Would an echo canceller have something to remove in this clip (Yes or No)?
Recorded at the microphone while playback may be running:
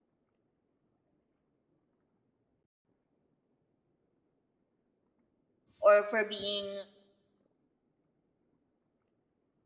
No